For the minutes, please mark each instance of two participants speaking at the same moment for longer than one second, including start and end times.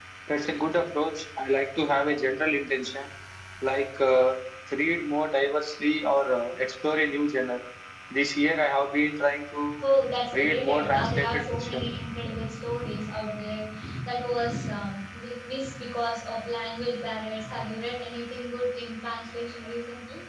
10.3-11.9

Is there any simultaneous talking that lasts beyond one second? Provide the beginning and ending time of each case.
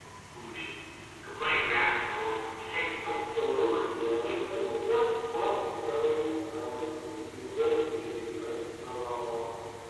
3.0-4.4

